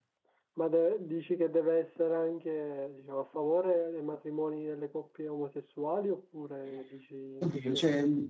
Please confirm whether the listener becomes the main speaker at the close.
Yes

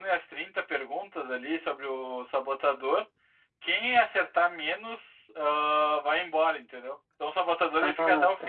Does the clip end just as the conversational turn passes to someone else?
Yes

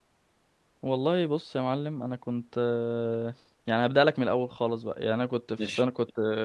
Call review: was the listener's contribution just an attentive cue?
Yes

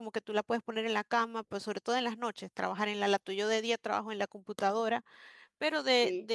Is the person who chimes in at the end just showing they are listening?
Yes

